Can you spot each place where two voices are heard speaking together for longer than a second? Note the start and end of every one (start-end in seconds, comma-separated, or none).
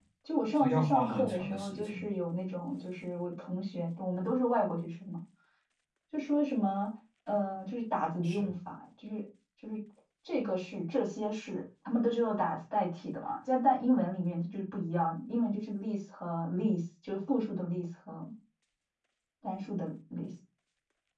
0.6-2.1